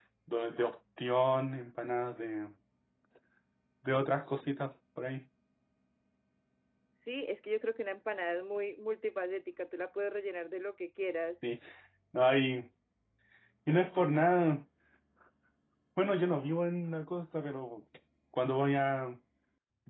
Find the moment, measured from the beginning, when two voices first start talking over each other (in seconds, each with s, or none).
none